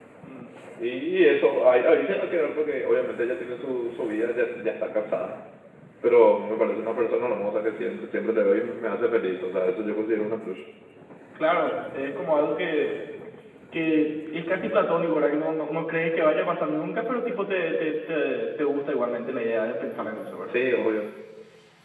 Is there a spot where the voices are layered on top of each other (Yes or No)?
No